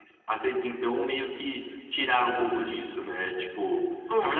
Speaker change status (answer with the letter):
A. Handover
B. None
B